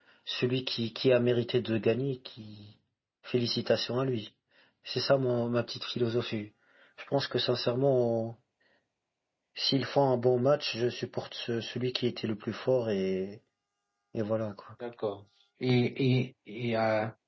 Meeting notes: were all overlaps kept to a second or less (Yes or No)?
Yes